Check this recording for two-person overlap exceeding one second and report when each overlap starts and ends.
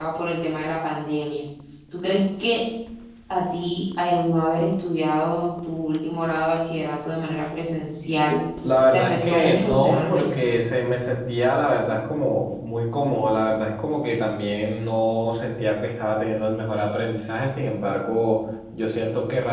8.9-10.3

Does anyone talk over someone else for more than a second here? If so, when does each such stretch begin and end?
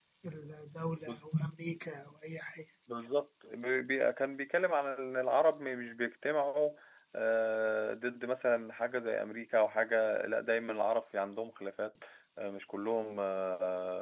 none

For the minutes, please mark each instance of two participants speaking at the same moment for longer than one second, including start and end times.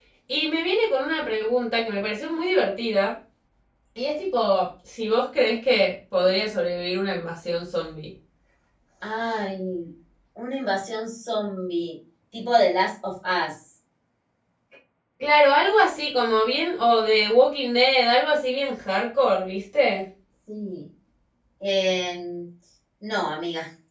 none

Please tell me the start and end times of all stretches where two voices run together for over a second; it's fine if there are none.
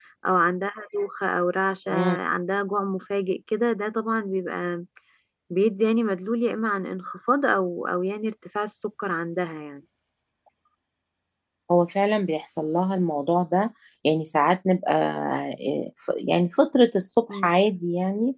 none

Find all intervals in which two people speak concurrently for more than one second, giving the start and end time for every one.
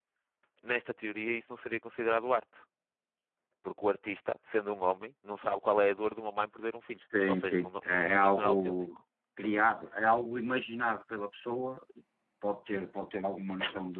7.3-8.7

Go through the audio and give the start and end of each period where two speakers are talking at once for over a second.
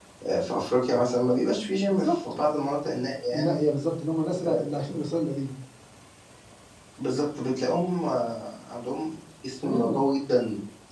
none

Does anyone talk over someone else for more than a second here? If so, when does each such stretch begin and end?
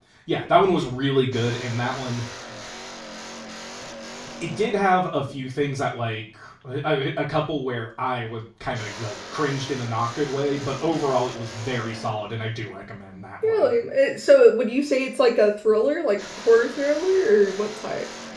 none

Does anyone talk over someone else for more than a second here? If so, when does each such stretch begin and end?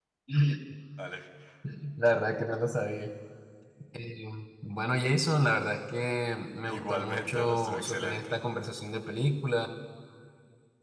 6.6-8.3

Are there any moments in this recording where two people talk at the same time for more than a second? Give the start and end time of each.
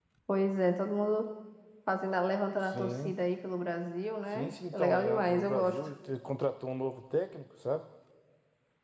4.3-5.8

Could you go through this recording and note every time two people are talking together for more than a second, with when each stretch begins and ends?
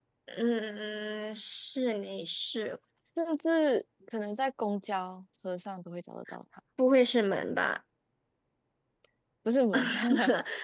none

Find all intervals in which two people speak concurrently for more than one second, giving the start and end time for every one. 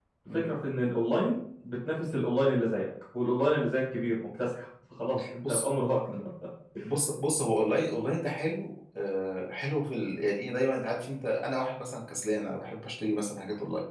none

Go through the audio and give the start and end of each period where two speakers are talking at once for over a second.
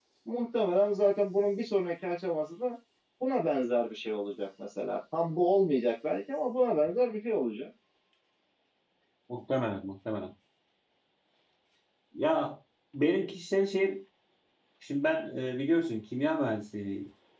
none

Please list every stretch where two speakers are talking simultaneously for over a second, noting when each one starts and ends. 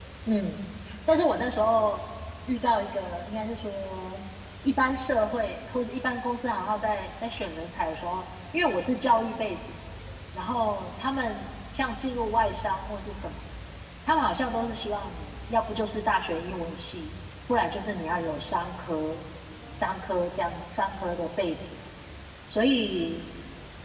none

